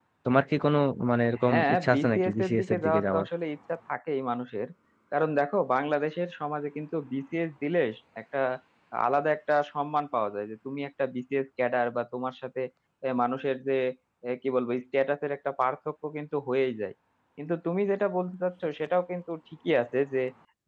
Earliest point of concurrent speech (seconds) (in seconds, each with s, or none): 1.4 s